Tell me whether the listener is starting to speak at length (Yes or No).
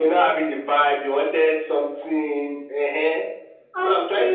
Yes